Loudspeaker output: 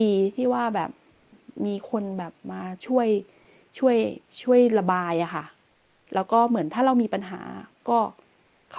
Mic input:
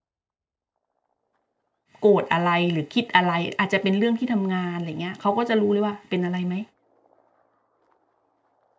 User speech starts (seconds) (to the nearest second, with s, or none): 2 s